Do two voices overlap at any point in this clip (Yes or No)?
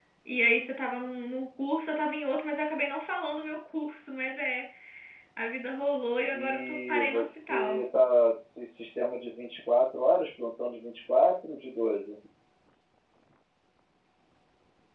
Yes